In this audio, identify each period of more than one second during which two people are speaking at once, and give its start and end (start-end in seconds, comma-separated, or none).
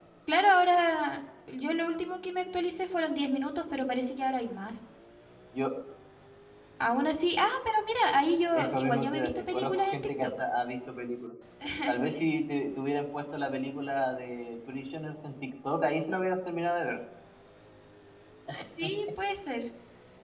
8.5-10.3